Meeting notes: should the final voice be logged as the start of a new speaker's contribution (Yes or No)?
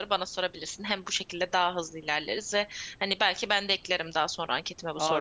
Yes